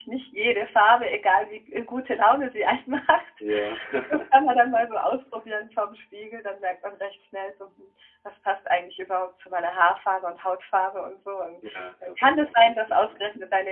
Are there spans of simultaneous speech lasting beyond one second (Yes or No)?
Yes